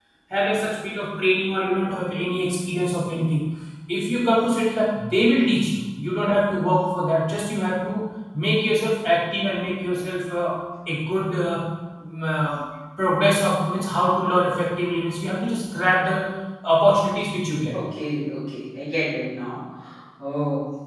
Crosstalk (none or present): none